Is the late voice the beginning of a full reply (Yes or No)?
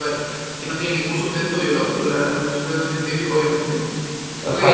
Yes